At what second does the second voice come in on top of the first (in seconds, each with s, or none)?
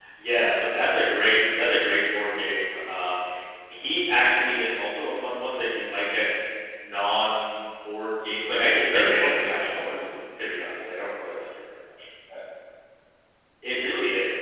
8.7 s